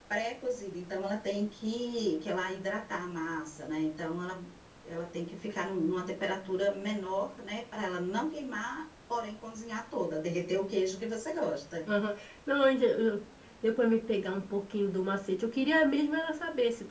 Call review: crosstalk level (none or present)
none